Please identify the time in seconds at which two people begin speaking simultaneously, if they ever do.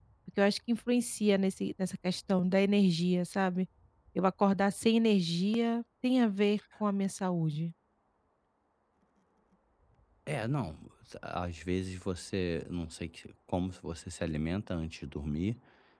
none

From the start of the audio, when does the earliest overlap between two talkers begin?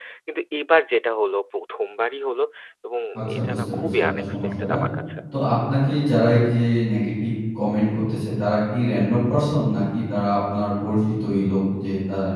3.4 s

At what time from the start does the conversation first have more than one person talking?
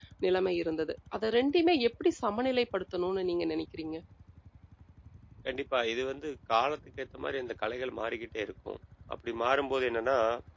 none

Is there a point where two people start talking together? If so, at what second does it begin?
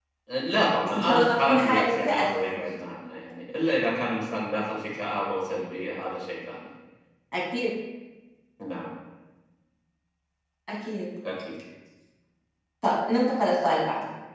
0.8 s

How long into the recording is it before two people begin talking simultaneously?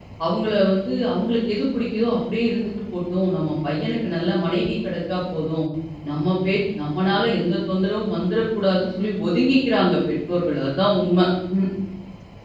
none

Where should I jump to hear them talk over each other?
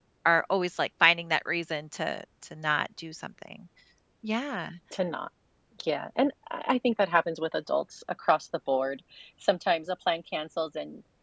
none

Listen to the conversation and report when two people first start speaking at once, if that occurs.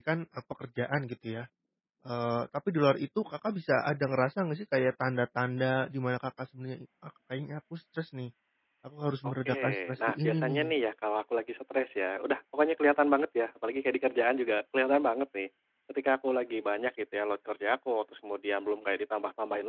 9.2 s

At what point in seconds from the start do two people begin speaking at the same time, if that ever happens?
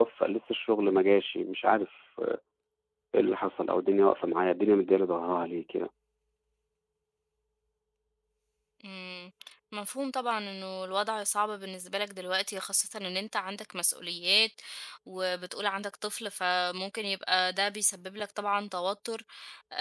none

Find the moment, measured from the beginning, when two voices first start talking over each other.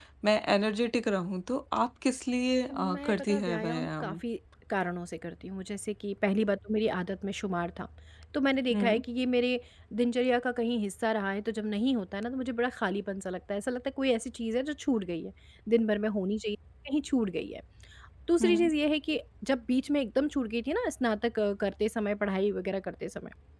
2.7 s

